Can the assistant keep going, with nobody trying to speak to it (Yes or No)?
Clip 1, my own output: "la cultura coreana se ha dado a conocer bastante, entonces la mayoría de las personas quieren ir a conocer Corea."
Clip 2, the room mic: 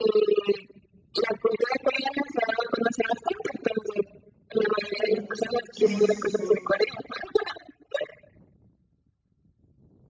No